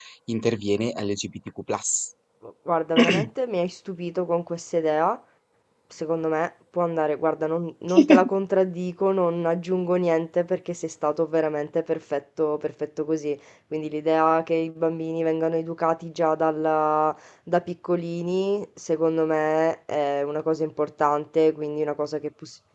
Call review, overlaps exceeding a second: none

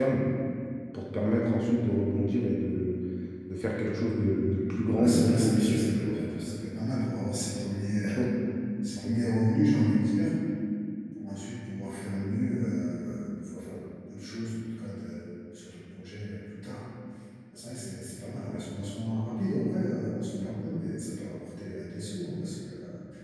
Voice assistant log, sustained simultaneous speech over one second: present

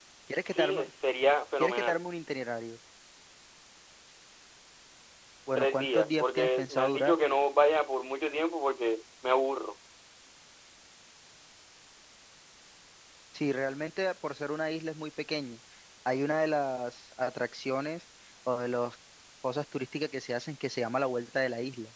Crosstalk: present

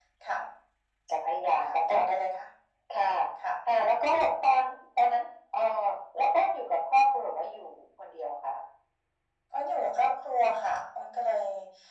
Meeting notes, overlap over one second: none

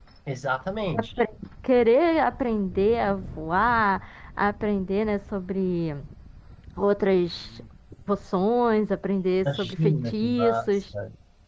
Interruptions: present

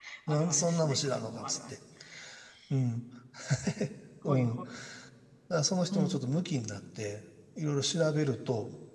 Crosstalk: present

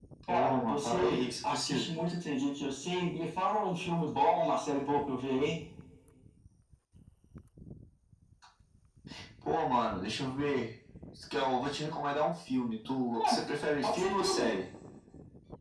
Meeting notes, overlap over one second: present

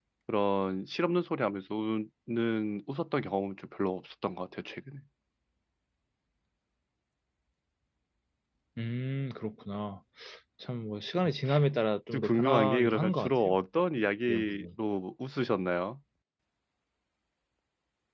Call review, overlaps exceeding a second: present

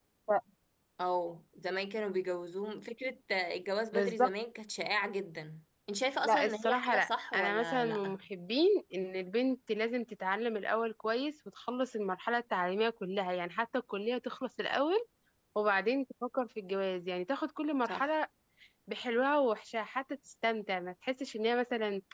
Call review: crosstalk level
present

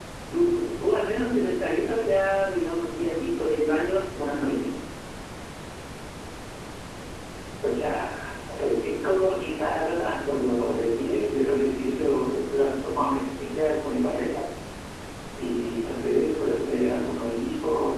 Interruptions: none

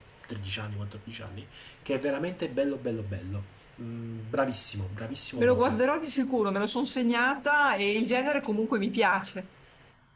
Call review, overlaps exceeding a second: none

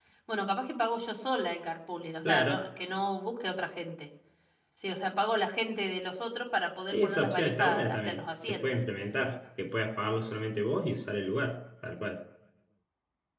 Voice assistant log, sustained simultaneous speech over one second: present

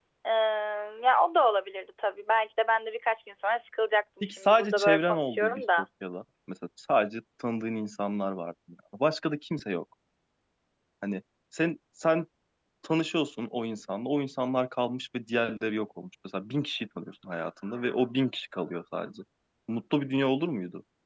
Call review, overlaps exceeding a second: present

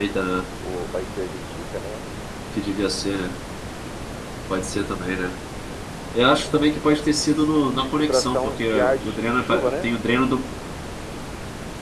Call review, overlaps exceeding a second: present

